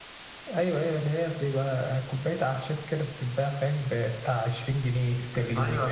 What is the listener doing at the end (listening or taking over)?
taking over